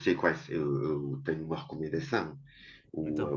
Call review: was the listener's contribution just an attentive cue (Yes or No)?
Yes